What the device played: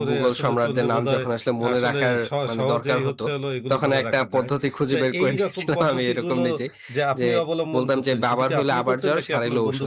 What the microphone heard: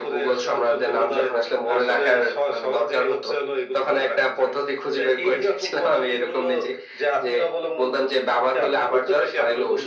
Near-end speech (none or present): none